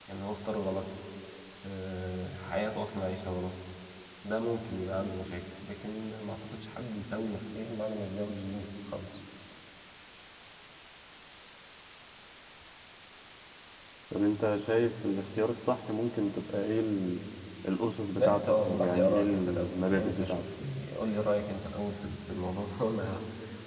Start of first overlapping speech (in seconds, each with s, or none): 18.2 s